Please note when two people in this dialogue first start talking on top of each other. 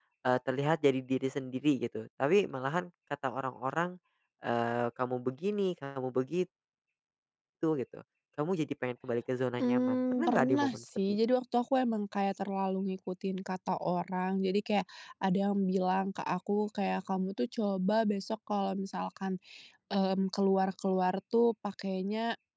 9.6 s

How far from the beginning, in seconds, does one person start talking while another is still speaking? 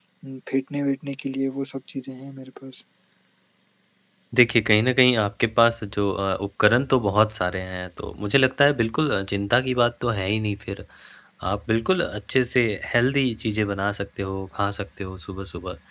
none

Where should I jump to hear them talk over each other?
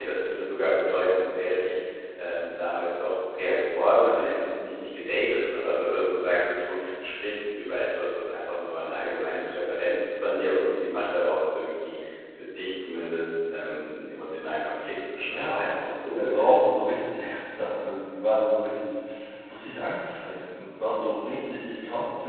15.3 s

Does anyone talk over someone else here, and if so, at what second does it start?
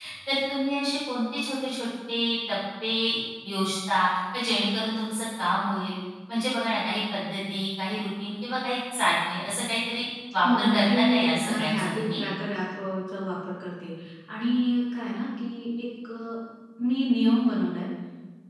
10.4 s

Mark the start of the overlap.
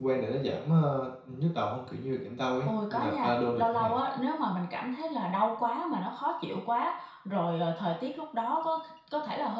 2.7 s

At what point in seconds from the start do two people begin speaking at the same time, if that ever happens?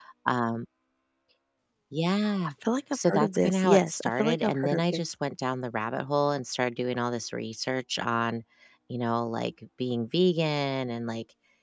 3.0 s

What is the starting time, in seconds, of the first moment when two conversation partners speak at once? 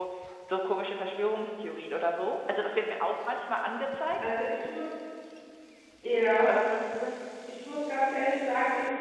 none

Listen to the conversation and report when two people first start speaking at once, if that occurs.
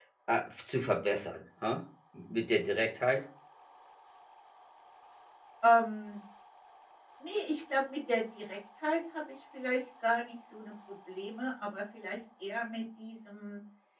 none

